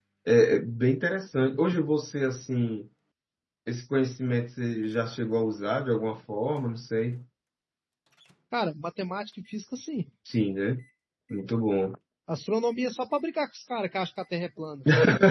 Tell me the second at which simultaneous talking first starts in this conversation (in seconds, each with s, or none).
none